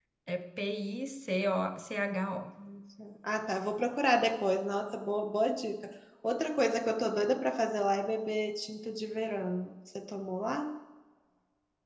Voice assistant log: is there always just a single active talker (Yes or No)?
Yes